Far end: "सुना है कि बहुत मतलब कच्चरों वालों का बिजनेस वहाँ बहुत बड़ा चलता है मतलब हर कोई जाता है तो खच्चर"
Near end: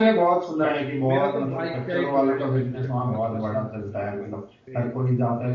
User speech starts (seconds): 1 s

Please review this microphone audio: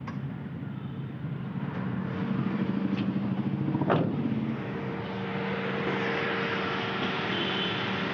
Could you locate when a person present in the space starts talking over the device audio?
none

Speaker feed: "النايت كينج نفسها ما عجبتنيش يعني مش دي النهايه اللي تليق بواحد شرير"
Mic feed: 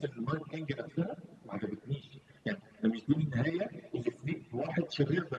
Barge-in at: none

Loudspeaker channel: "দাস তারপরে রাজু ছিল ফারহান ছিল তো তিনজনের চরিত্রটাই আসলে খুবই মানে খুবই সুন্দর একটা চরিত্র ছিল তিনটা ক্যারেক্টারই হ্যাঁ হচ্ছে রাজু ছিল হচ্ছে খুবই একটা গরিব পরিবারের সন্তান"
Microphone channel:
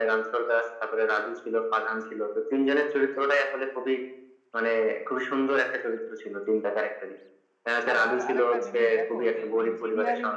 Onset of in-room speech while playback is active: 8 s

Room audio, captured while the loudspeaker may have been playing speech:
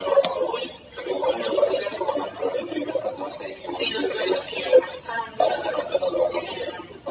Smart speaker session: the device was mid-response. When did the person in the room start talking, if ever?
none

